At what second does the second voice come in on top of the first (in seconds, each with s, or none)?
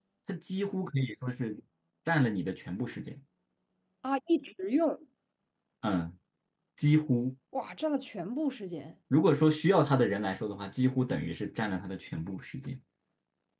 none